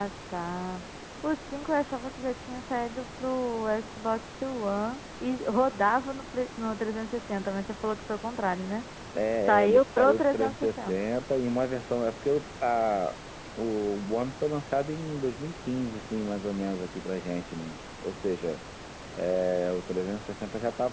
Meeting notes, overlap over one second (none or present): present